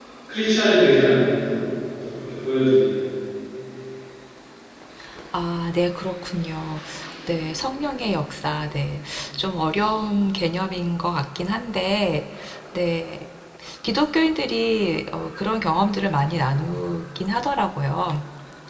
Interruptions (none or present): none